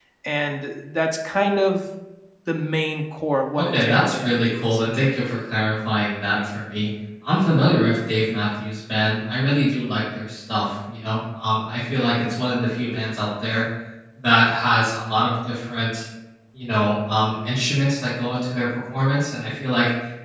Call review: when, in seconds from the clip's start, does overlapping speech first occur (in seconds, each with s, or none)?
3.6 s